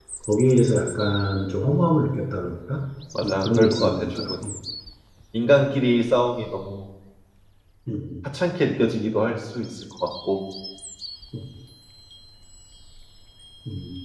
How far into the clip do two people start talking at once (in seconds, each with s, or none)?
3.2 s